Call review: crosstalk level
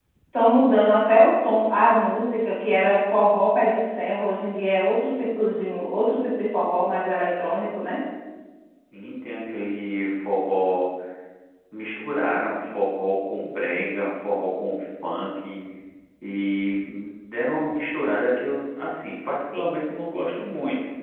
none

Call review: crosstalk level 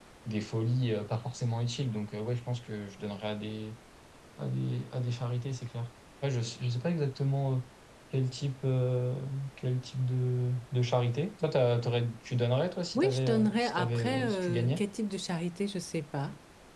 present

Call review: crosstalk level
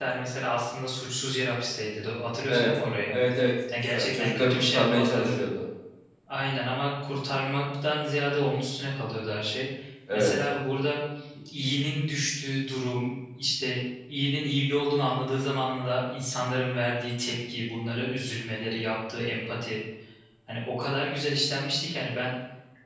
present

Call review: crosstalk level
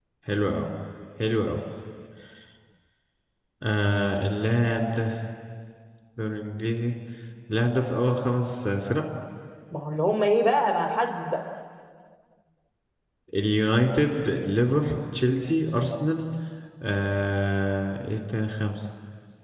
none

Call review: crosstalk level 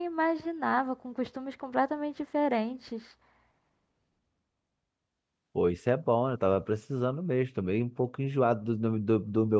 none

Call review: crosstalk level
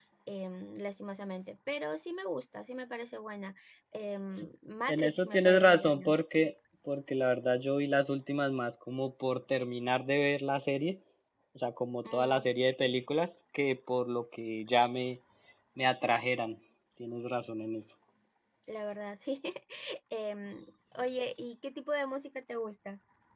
present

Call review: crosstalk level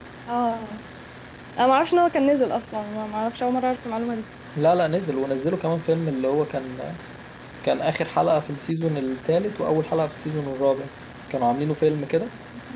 none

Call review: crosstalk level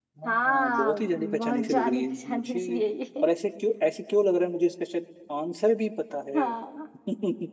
present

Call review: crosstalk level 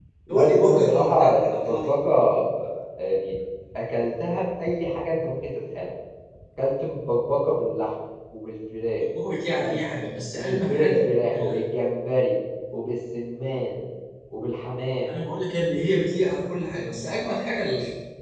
present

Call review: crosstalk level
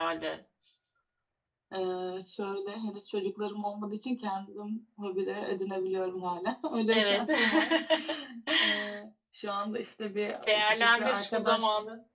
present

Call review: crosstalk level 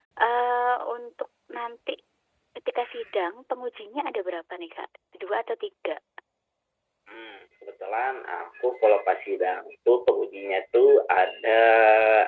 none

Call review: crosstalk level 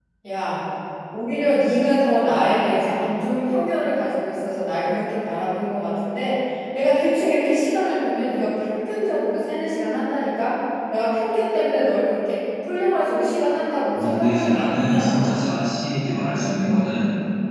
present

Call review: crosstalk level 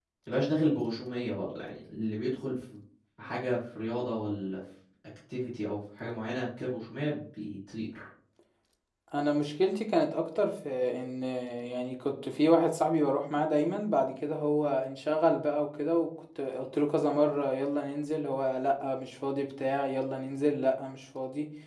none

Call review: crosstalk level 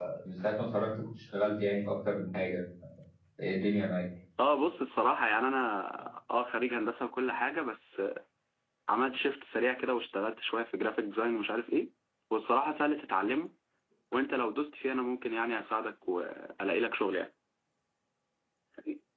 none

